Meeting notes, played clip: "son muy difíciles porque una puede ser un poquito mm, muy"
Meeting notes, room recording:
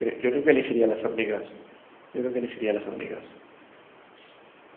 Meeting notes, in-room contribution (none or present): present